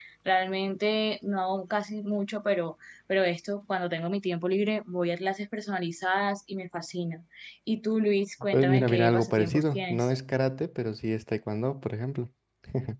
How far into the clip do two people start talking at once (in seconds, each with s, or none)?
8.5 s